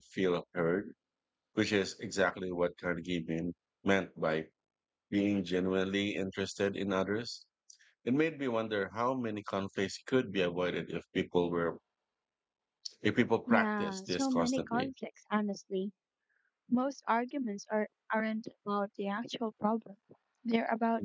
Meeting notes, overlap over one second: present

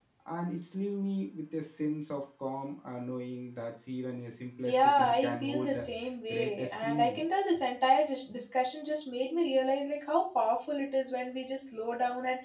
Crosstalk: present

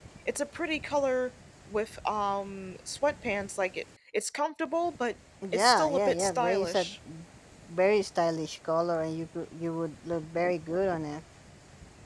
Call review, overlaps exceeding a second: present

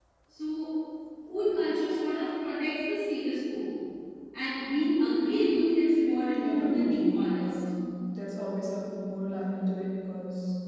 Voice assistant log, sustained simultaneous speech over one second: present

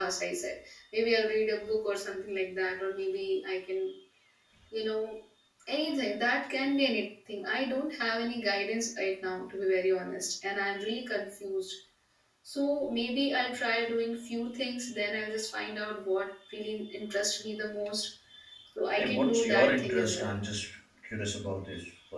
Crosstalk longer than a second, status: present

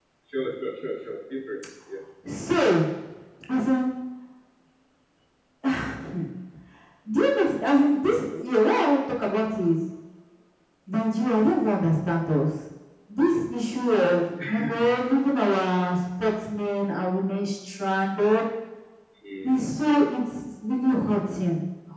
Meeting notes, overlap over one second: none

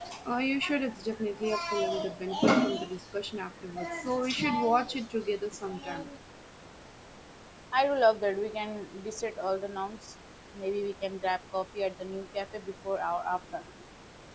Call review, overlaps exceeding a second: none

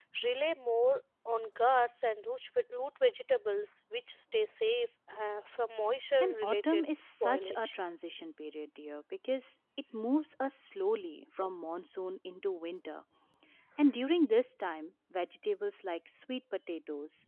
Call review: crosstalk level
present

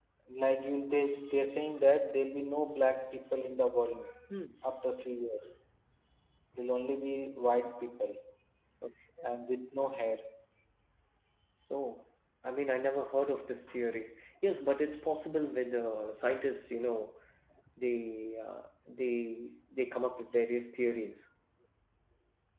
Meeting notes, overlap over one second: none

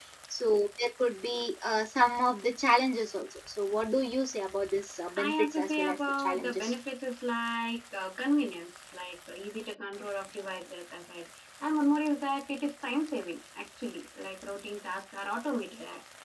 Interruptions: present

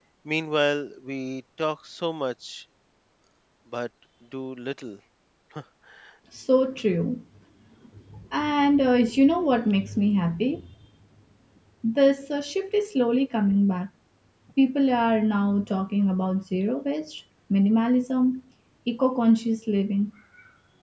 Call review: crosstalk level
none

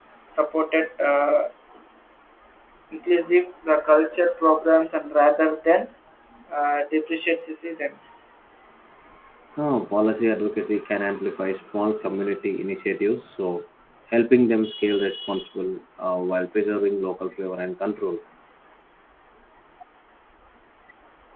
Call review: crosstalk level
none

